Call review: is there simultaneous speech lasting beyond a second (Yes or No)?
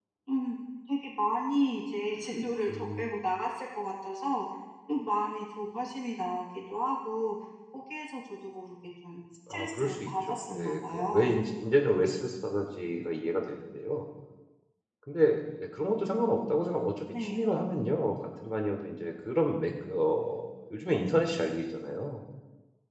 Yes